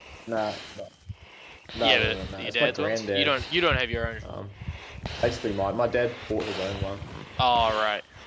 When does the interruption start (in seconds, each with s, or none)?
1.8 s